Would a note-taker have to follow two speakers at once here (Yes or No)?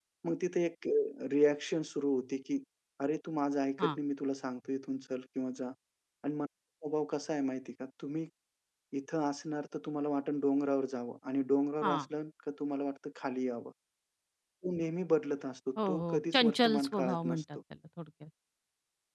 Yes